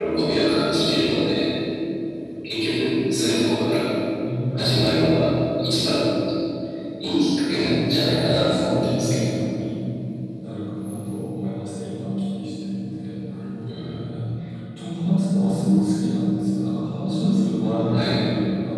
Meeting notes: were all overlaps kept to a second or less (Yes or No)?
No